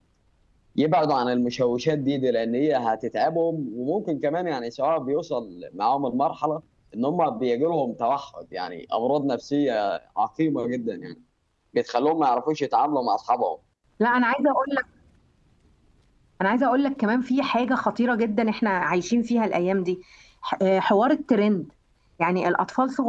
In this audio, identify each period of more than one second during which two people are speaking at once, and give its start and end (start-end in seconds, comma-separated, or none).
none